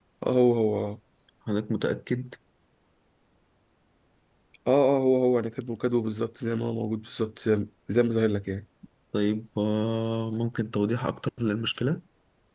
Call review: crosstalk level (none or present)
none